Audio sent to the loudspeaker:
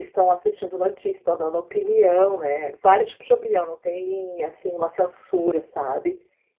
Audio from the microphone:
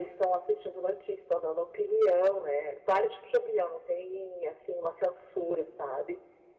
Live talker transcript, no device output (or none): none